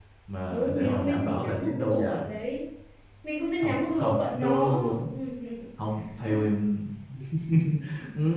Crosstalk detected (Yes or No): Yes